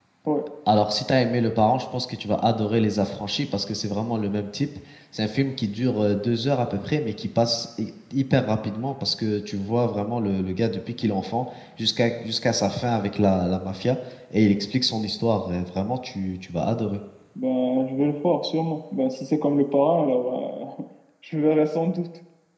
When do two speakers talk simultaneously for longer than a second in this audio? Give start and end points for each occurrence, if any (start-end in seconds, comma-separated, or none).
none